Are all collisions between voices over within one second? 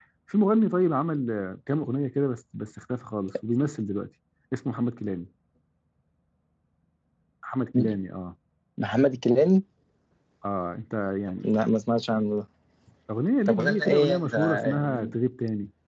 No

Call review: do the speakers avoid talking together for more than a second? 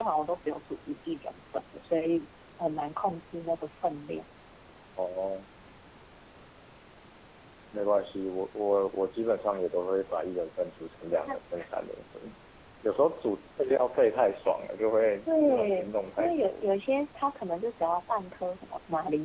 No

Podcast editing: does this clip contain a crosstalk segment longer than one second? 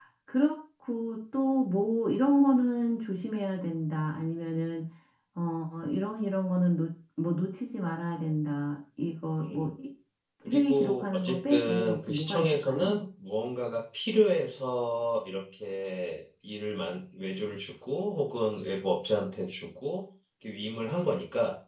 Yes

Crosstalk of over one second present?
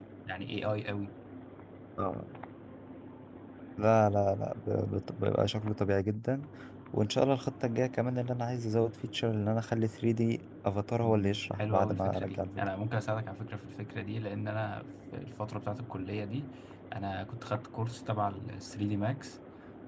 Yes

